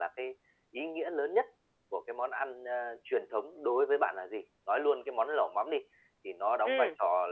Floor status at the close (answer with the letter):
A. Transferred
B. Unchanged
B